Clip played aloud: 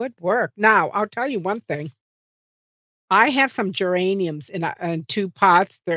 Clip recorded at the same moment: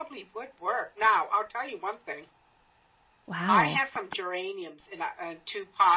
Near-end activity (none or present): present